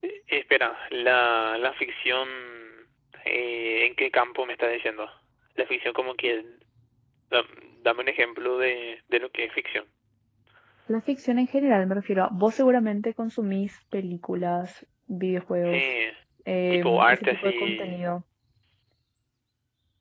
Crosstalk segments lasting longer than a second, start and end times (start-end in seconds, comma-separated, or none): 16.7-18.0